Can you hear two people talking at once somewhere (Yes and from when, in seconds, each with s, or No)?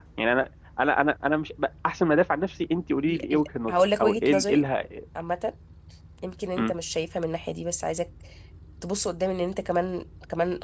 Yes, from 3.1 s